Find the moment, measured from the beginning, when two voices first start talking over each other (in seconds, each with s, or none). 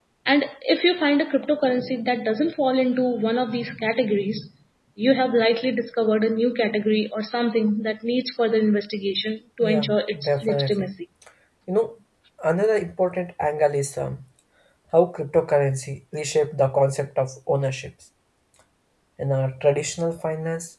9.6 s